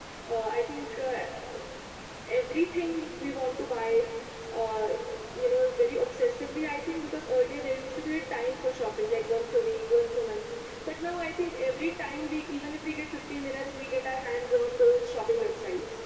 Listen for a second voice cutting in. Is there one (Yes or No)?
No